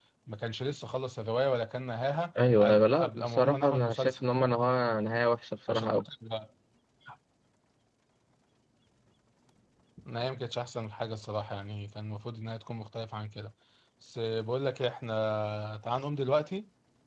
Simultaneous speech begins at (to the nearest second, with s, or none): 3 s